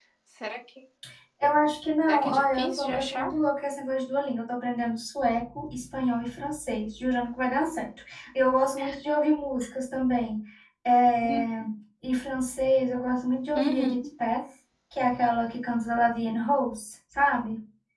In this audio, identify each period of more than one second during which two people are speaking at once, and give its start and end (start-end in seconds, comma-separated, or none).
2.1-3.3